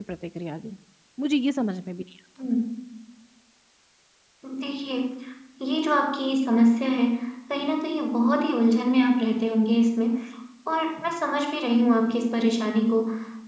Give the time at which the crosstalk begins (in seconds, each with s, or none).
none